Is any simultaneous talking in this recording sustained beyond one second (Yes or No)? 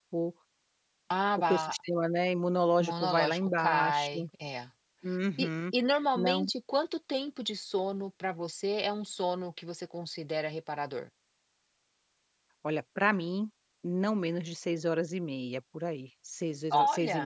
Yes